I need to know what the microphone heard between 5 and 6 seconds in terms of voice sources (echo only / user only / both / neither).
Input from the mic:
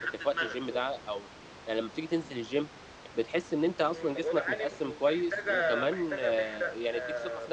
both